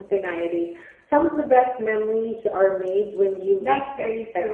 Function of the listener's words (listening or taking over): taking over